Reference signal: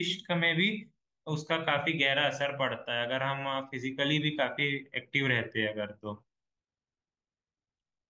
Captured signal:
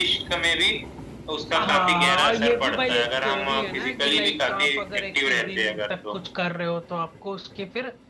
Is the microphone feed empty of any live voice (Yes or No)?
No